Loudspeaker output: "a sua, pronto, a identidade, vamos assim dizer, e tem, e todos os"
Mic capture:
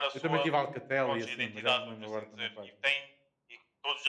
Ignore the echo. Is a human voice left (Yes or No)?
Yes